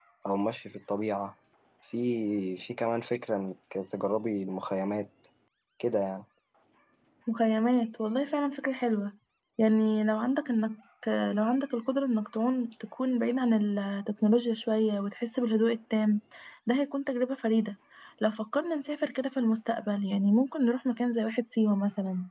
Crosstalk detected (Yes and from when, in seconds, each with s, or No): No